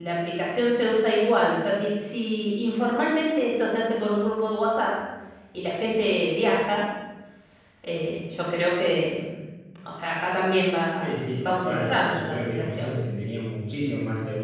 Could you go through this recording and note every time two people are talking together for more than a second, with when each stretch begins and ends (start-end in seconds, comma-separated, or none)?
11.0-12.9